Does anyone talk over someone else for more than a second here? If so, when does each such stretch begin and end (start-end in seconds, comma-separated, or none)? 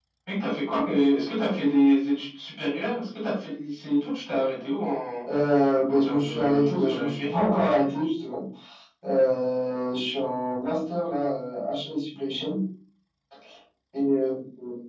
5.9-7.3